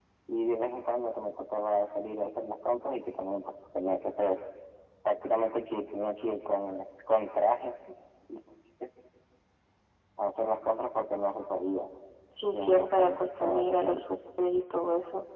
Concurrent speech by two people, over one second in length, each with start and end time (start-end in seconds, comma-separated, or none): 12.5-14.0